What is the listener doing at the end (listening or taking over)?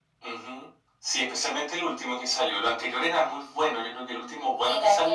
taking over